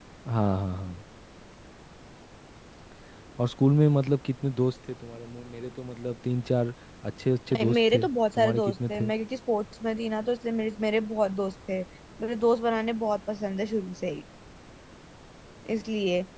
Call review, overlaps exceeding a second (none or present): present